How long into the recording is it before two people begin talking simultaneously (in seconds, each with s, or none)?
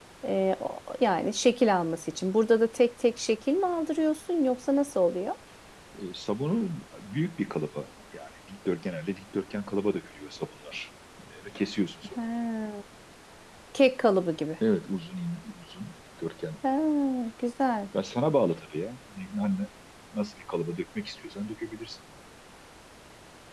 none